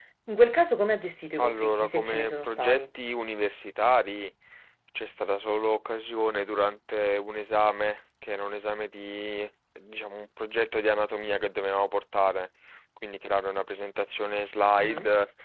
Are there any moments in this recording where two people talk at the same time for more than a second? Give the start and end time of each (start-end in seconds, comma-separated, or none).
1.4-2.8